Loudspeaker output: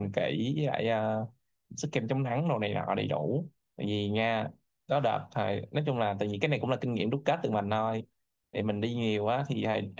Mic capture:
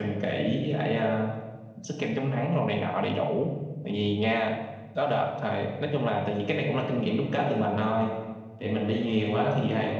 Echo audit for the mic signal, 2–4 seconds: echo only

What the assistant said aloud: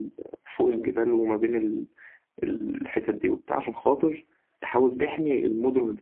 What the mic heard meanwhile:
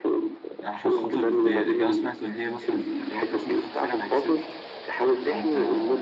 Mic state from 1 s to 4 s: both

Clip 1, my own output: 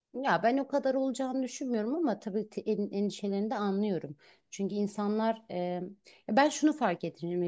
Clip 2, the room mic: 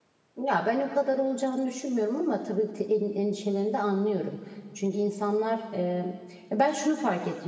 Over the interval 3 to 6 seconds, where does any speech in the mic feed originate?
echo only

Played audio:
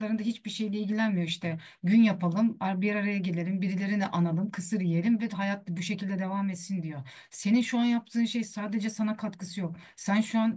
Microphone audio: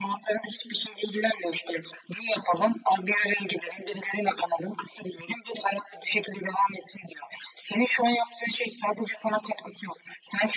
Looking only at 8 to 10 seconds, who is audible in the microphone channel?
echo only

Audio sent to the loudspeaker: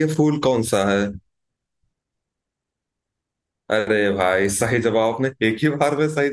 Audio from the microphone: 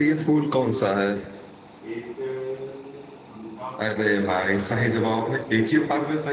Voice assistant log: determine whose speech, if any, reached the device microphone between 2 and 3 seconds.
user only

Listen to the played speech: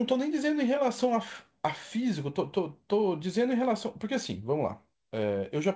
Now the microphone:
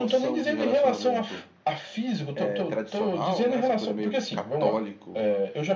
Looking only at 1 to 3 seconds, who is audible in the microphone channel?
both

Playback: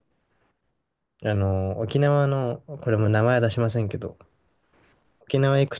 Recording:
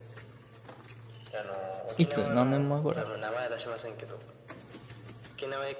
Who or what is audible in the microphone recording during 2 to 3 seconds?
both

